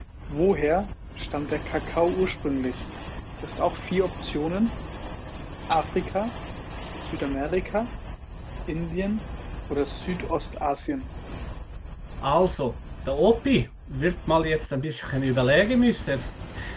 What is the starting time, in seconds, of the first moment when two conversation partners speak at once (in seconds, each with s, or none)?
none